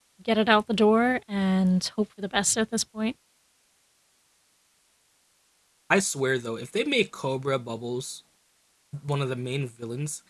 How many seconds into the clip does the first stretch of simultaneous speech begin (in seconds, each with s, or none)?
none